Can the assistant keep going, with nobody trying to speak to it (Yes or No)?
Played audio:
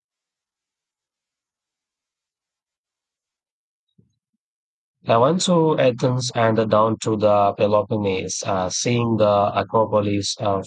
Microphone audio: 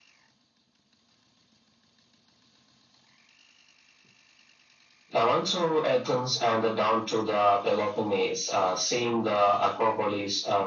Yes